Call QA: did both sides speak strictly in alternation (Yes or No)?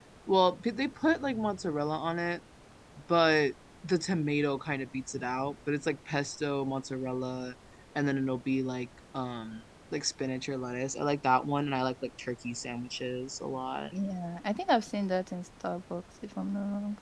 Yes